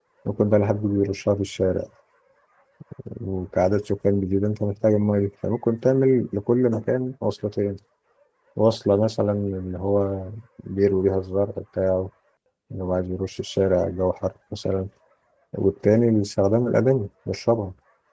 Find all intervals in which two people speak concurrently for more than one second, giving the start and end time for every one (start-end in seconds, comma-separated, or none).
none